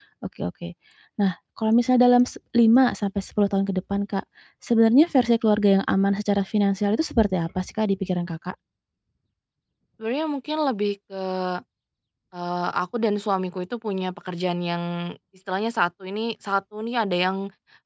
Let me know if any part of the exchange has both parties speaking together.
No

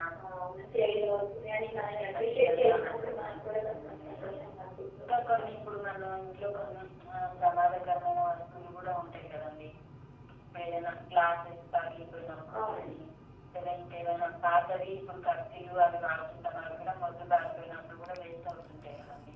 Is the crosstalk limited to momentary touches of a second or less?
No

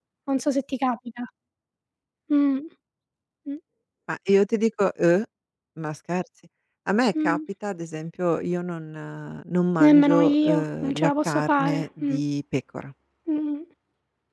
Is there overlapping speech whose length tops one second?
Yes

